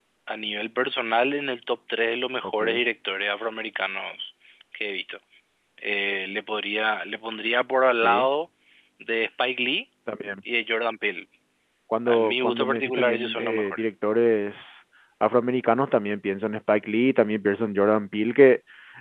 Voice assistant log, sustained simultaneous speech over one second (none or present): present